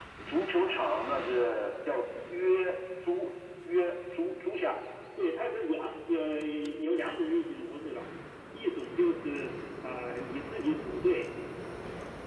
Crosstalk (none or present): none